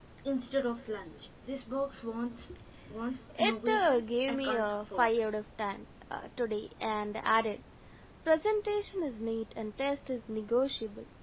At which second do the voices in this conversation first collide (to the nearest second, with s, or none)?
3 s